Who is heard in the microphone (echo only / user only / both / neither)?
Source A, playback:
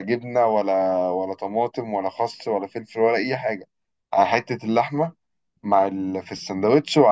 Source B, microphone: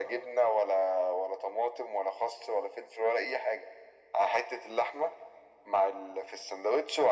echo only